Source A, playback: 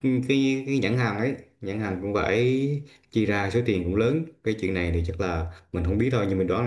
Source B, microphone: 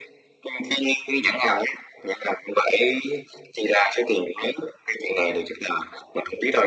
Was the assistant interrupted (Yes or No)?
No